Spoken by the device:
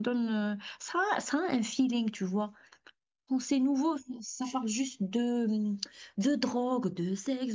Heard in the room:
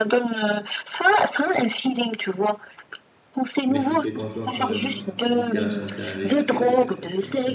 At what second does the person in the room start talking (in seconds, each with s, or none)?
3.7 s